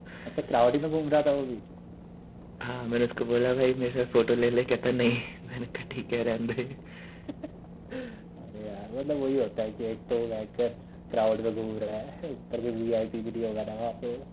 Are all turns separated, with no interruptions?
Yes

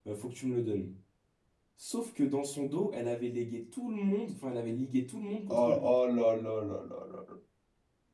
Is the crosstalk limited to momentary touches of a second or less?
Yes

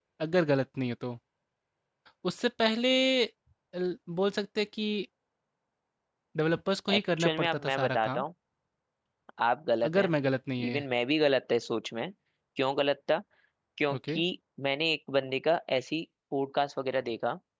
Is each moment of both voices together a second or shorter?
No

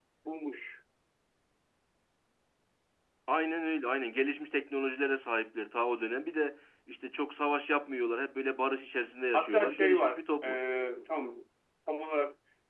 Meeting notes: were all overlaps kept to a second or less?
No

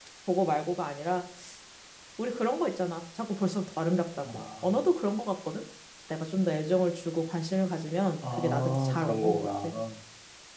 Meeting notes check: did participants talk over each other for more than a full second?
Yes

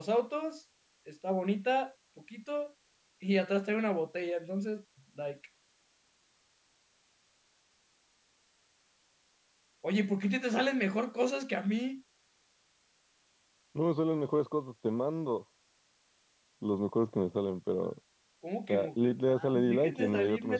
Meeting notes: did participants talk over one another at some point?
Yes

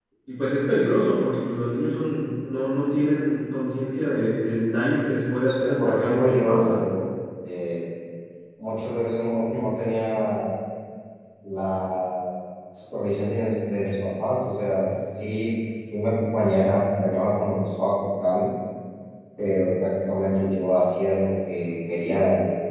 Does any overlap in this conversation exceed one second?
Yes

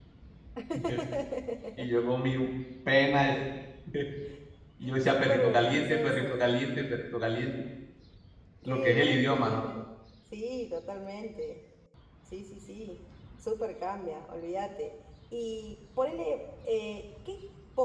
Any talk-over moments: Yes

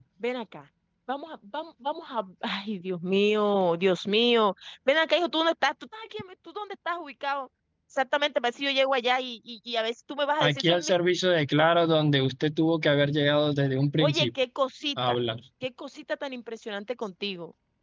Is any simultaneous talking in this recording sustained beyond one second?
No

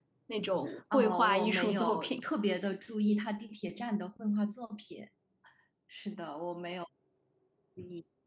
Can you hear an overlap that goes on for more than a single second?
Yes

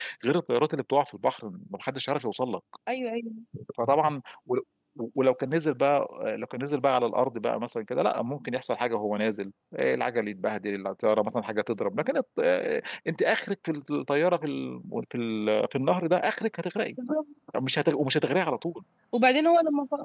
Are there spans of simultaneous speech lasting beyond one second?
No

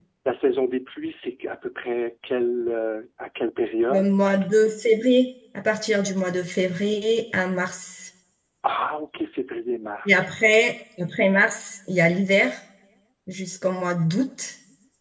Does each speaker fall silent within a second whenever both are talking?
Yes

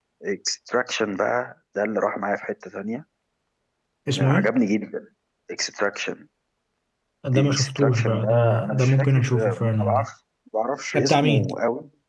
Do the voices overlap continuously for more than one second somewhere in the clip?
Yes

